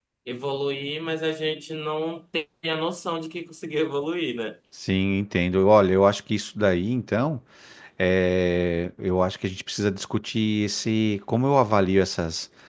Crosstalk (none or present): none